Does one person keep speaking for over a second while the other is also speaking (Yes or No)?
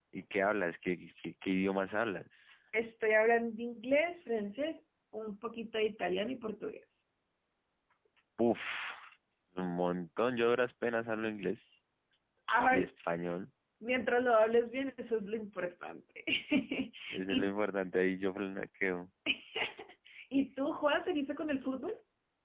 No